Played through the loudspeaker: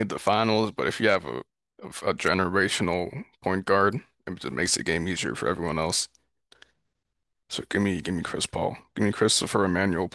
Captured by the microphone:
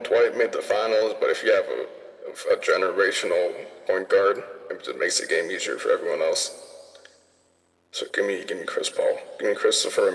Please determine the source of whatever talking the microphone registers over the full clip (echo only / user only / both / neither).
echo only